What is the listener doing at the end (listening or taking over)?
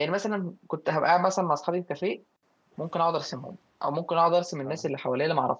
listening